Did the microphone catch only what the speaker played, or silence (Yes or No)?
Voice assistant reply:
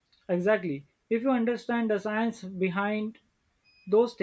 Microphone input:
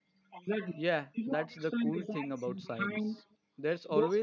No